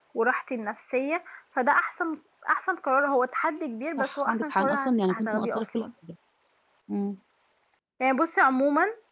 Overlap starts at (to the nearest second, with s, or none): 4 s